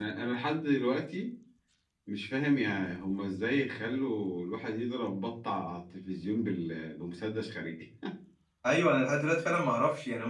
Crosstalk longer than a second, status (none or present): none